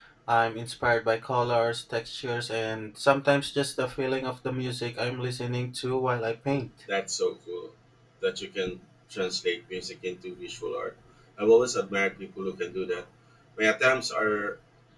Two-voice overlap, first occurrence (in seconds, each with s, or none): none